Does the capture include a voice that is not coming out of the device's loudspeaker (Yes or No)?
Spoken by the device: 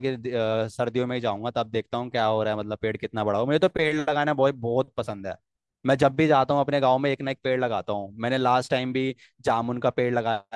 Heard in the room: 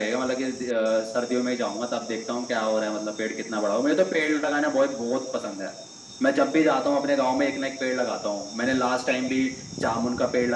No